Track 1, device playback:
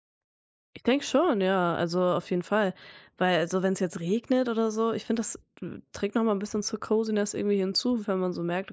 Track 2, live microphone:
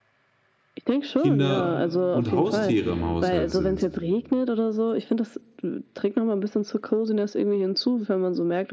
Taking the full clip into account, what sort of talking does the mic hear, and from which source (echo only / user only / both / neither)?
both